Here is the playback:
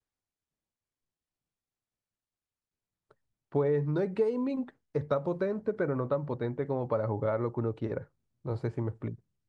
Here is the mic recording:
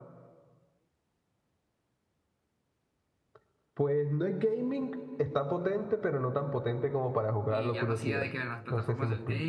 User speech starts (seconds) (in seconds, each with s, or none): 7.5 s